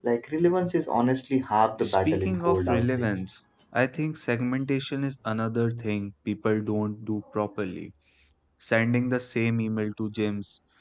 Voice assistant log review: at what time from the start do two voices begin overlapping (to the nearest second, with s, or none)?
2 s